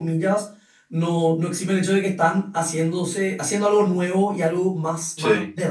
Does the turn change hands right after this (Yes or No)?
No